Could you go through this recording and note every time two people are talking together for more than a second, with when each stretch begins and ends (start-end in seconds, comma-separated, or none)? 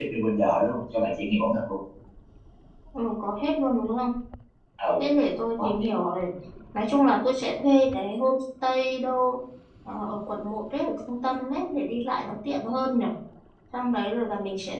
none